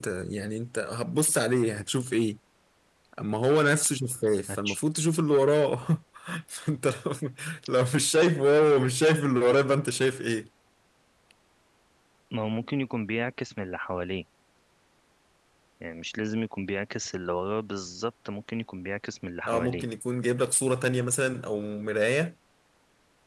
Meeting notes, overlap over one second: none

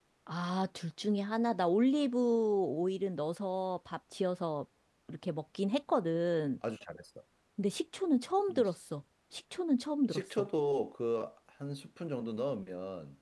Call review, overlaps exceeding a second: none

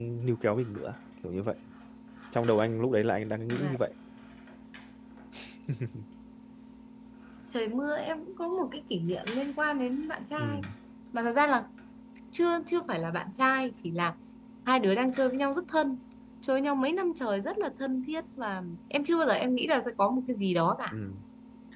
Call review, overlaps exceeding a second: none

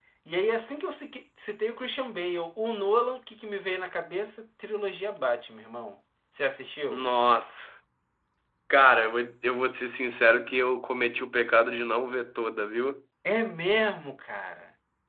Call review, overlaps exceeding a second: none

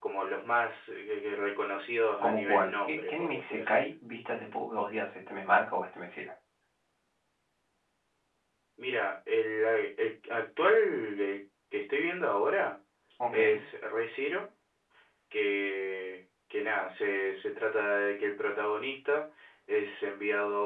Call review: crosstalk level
present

